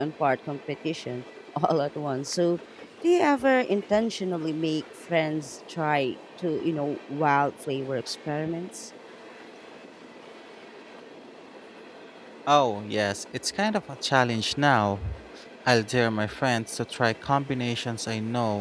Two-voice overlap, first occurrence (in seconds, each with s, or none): none